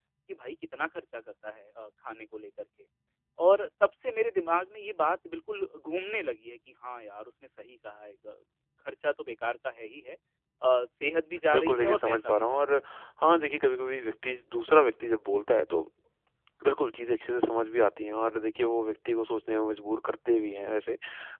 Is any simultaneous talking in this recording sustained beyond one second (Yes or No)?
Yes